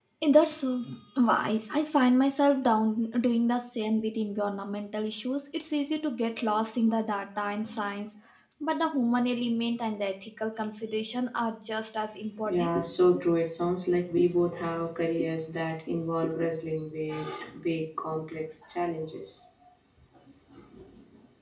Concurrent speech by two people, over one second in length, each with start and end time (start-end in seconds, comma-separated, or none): none